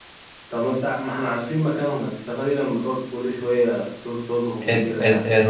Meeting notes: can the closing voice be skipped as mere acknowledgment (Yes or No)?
No